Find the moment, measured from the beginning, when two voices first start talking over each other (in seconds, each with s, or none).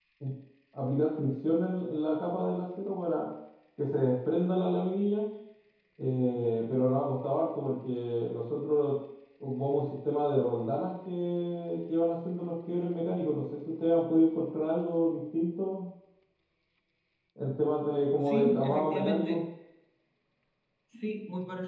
18.2 s